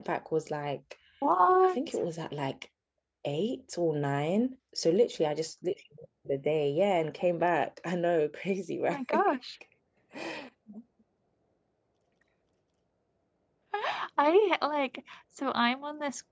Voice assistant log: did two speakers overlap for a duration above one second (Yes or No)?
No